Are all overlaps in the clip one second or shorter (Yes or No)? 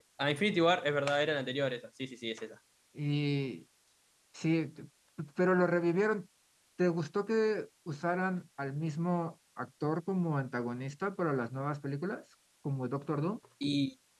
Yes